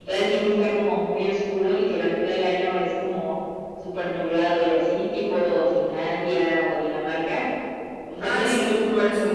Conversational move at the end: taking over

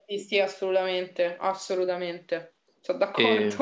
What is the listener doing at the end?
taking over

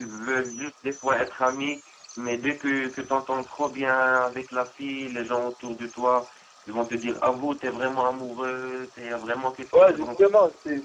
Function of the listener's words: taking over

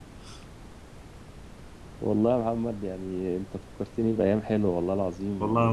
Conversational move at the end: taking over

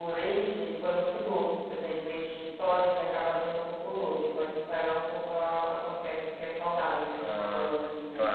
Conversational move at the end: taking over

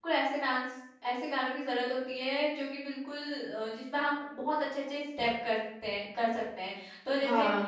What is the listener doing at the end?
listening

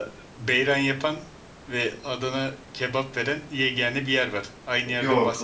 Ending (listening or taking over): taking over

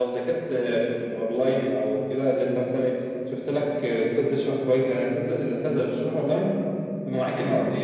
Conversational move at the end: listening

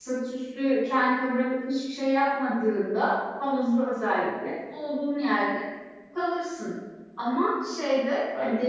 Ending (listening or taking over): listening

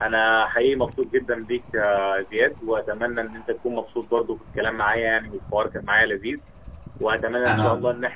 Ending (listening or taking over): listening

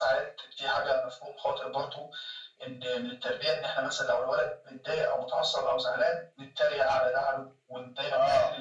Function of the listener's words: listening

